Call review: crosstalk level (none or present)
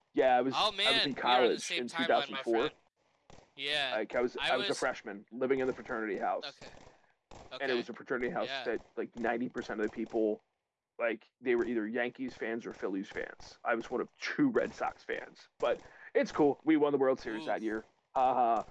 present